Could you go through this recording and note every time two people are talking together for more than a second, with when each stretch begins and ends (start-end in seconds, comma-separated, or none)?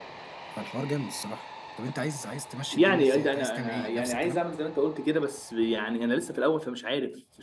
2.7-4.4